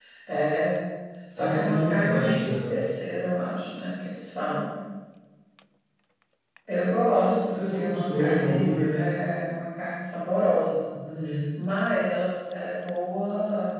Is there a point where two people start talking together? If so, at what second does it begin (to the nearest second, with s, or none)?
1 s